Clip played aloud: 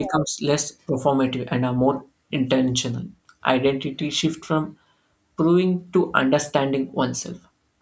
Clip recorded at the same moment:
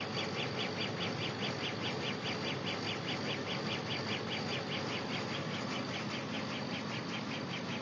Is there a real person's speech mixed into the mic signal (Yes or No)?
No